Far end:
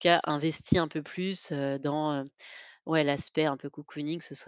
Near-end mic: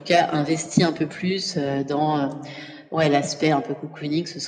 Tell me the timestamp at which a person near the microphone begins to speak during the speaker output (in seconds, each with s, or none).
none